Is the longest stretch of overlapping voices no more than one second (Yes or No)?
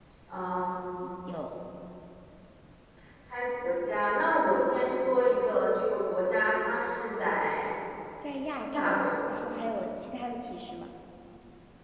Yes